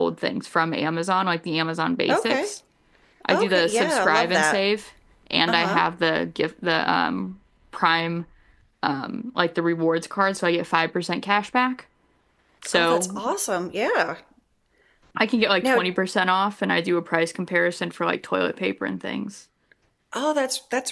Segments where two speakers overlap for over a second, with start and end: 3.3-4.6

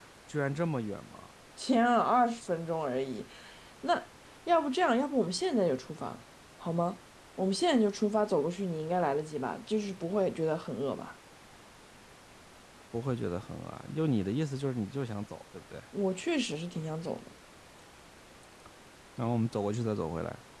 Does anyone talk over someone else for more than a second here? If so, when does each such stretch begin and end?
none

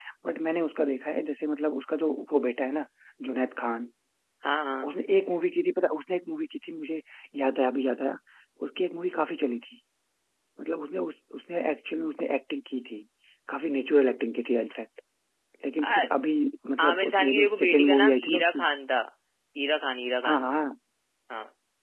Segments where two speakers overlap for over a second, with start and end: 16.9-18.6

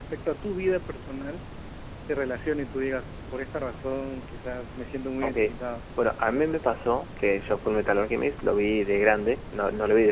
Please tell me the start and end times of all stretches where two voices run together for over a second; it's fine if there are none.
none

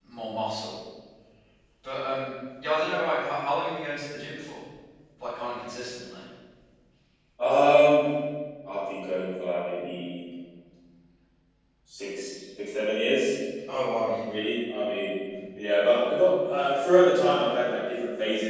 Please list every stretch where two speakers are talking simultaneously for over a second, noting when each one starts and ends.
none

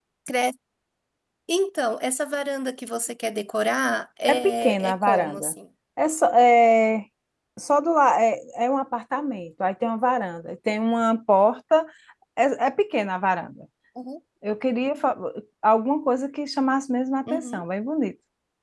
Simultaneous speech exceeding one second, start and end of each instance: 4.3-5.5

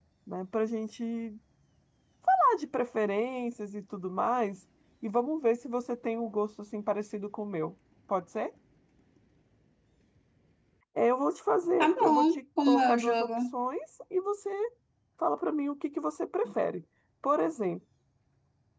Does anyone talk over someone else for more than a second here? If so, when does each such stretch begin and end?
11.8-13.3

